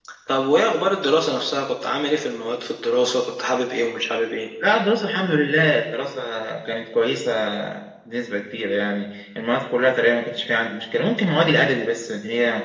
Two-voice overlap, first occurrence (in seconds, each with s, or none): none